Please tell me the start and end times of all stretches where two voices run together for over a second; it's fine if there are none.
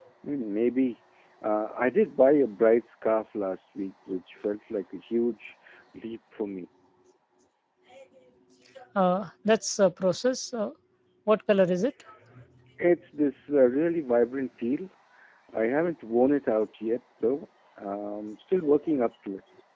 none

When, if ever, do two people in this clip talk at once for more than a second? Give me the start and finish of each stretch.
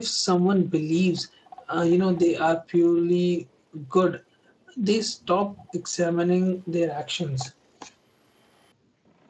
none

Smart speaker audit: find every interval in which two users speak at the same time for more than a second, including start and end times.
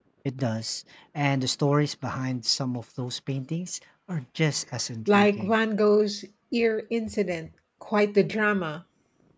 none

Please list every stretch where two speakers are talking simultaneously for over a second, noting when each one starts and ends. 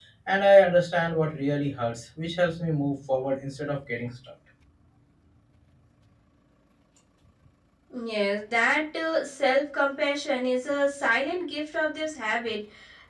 none

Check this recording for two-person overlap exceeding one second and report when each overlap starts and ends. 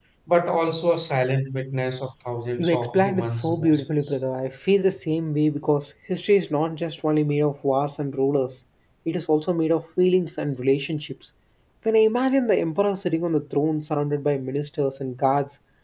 2.6-4.1

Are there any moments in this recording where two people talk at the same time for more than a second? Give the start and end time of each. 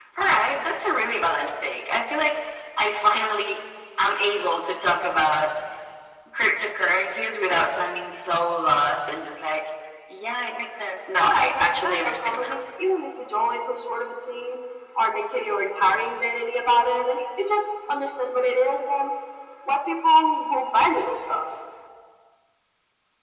11.2-12.6

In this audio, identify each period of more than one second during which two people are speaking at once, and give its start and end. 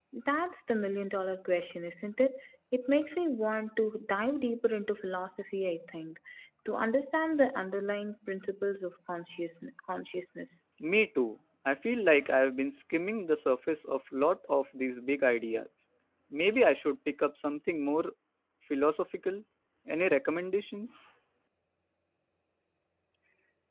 none

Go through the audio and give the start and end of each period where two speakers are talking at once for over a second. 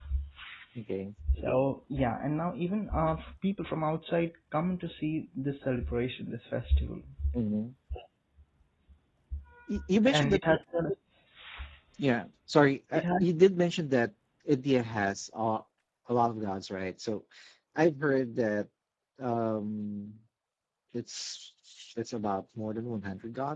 none

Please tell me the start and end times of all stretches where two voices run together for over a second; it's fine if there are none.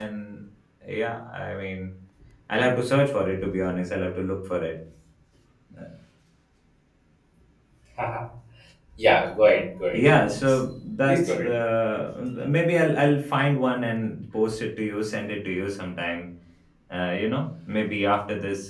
none

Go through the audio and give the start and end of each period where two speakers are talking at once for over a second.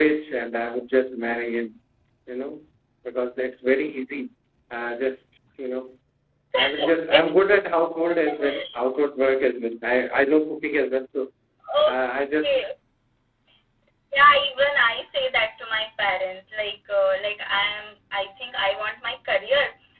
none

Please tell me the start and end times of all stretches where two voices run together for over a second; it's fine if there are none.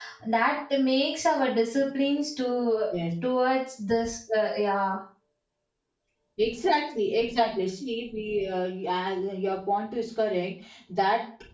none

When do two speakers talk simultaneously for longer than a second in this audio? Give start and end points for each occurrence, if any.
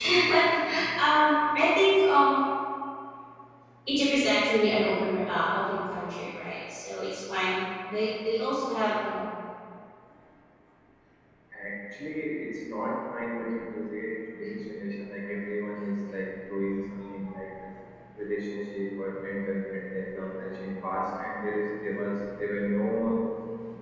none

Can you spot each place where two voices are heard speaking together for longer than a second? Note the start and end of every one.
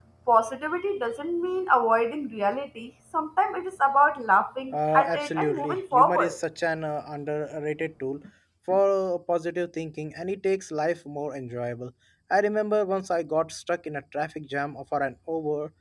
4.7-6.4

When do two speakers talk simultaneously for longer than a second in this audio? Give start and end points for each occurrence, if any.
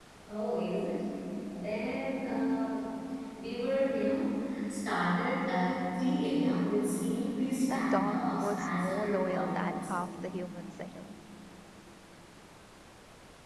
7.7-9.9

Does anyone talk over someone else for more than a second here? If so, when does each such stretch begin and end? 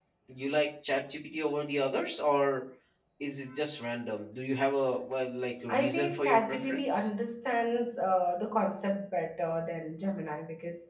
5.7-7.1

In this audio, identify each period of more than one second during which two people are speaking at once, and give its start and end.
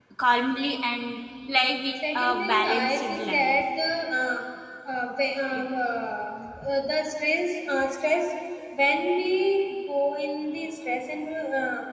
2.0-3.5

